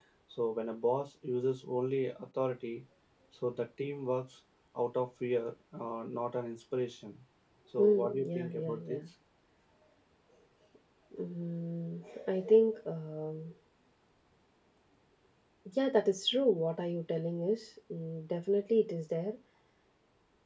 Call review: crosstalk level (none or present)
present